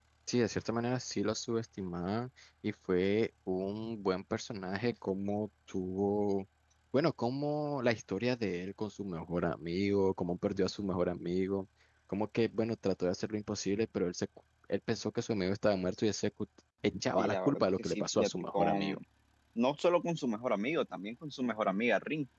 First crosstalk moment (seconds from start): 17 s

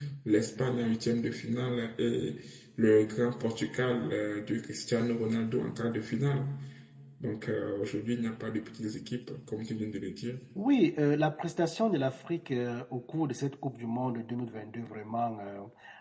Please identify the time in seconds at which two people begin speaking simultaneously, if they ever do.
none

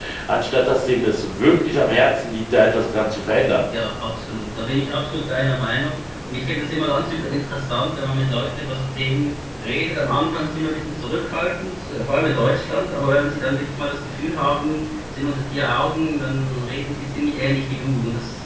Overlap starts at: none

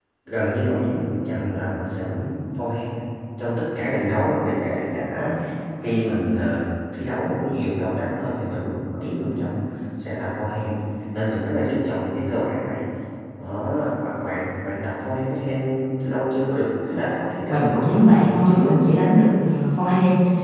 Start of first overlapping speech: 17 s

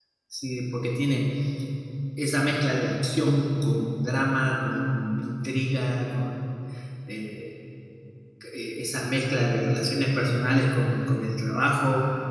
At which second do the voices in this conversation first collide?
none

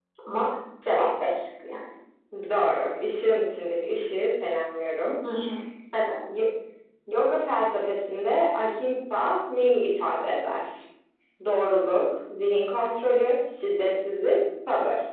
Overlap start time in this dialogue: none

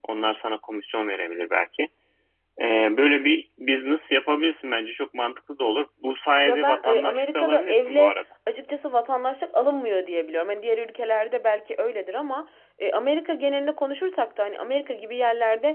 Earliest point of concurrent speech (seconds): 6 s

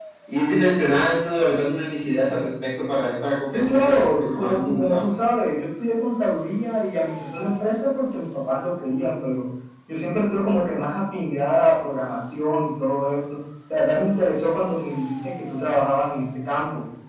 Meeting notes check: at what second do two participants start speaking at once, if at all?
4 s

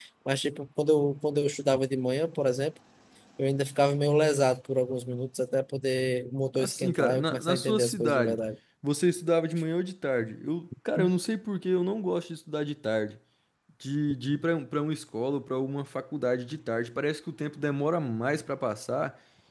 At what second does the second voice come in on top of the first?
7 s

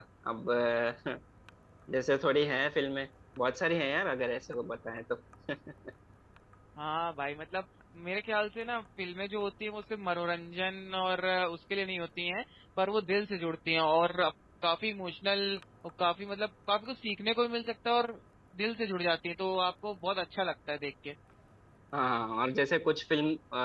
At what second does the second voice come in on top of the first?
none

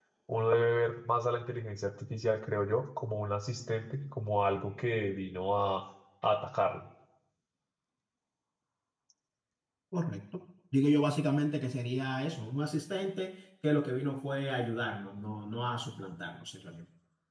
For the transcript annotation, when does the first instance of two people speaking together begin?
none

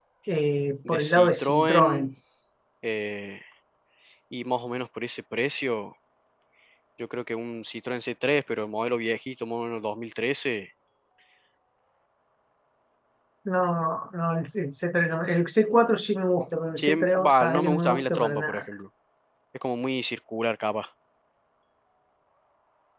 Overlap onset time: 1 s

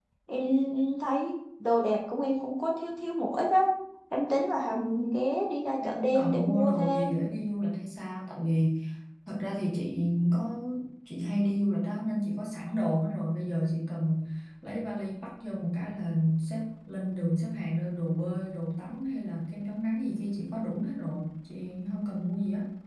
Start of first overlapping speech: 6 s

